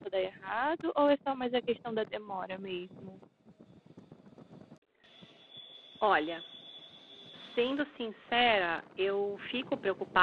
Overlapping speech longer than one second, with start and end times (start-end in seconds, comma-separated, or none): none